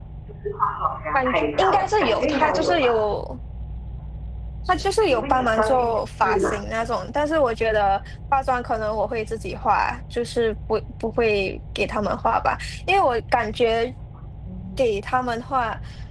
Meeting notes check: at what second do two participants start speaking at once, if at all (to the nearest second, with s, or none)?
1 s